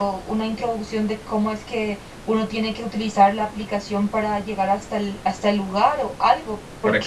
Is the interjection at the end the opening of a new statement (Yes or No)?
Yes